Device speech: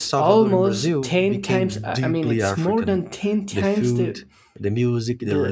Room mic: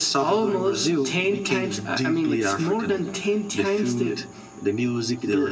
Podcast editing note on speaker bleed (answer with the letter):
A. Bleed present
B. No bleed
A